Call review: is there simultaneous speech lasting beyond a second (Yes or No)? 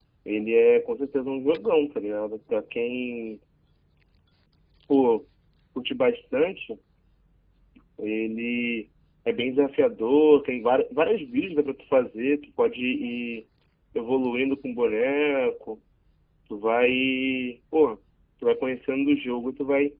No